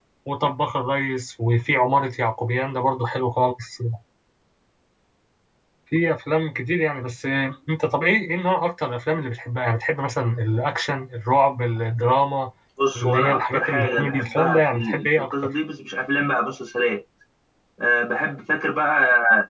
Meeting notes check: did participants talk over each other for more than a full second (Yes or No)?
Yes